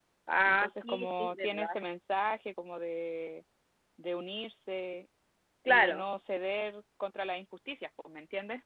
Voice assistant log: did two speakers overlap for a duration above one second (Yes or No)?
Yes